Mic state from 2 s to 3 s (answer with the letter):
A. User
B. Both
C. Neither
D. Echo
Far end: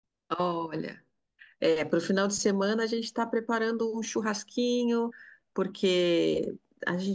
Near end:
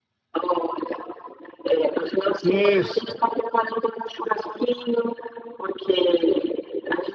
B